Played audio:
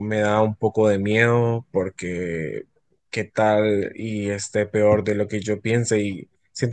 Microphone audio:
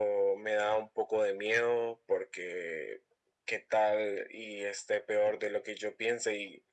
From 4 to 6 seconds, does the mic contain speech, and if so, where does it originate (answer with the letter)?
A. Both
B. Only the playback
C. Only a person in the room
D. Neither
B